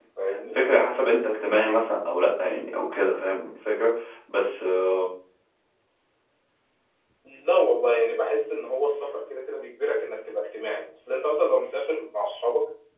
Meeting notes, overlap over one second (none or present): none